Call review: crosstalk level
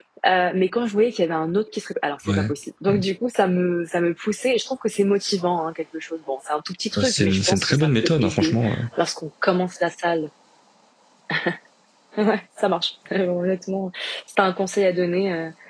present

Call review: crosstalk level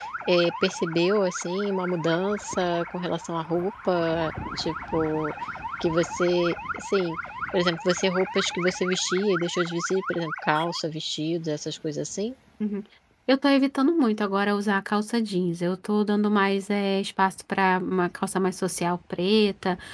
none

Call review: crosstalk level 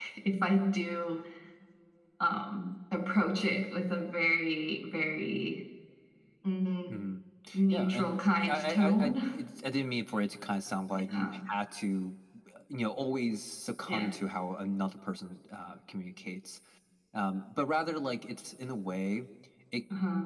present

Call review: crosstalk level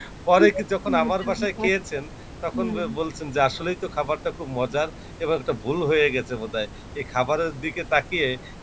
present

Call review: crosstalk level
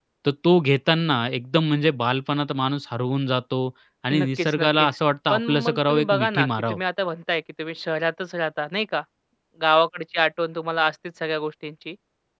present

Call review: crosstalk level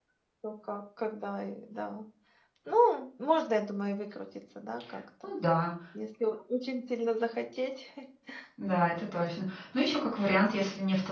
none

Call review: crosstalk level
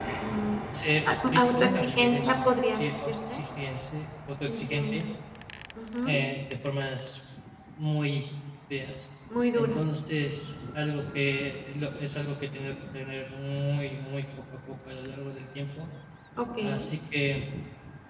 present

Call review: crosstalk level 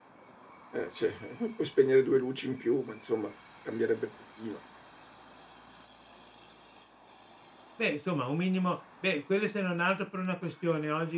none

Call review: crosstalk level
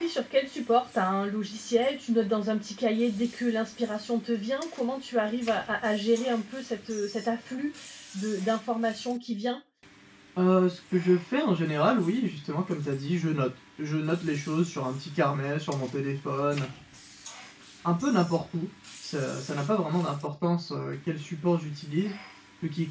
none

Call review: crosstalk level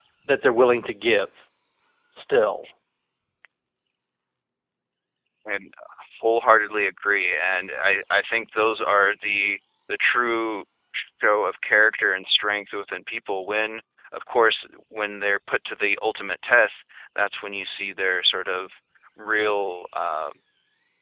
none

